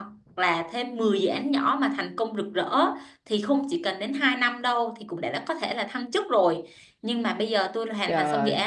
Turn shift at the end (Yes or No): No